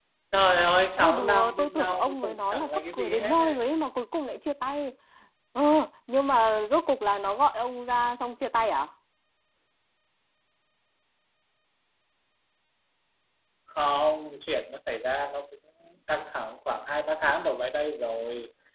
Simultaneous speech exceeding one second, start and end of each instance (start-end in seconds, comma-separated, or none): 1.0-3.6